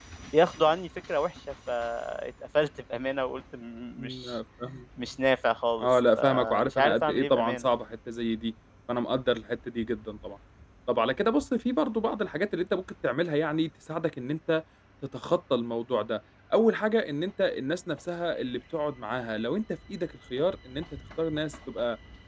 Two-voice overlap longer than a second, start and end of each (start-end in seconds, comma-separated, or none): 5.8-7.7